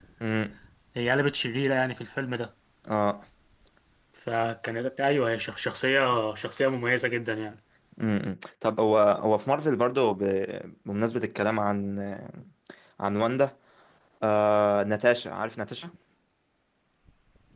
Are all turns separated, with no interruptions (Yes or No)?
Yes